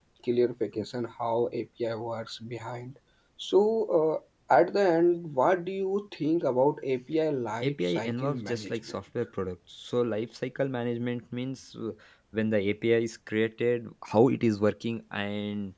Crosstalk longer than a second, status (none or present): present